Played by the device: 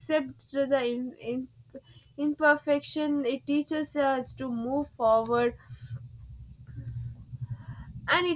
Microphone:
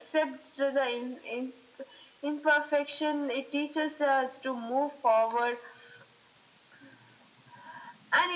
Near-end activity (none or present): none